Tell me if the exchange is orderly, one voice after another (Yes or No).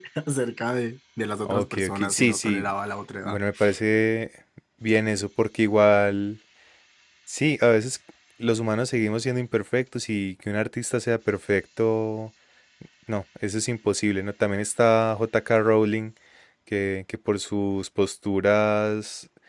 No